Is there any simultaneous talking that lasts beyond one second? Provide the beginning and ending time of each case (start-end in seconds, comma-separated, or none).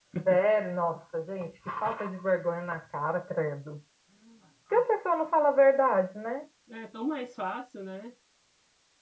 none